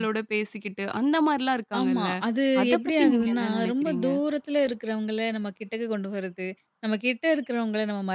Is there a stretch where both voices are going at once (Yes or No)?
Yes